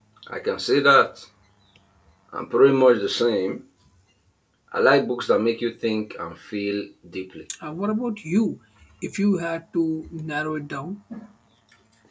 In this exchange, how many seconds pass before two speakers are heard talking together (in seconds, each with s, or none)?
none